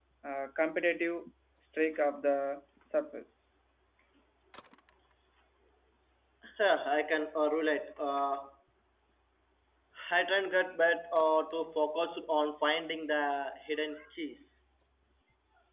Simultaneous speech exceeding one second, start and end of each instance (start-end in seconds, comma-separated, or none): none